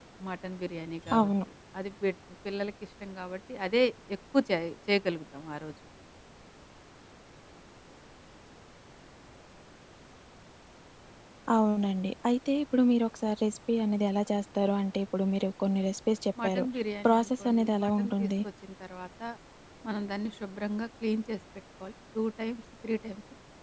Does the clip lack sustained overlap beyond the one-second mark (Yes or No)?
No